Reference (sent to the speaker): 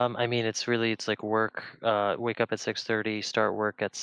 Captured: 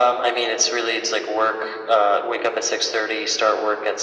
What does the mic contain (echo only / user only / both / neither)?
echo only